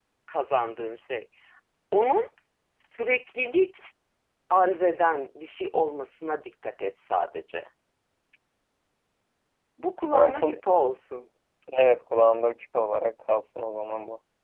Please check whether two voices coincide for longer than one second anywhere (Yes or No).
No